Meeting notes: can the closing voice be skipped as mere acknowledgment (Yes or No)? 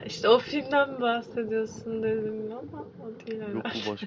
No